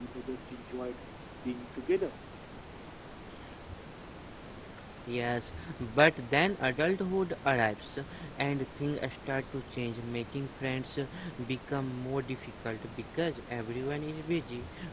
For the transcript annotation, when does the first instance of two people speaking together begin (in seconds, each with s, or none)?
none